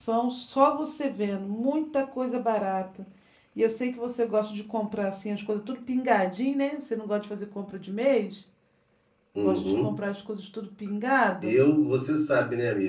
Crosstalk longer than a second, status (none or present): none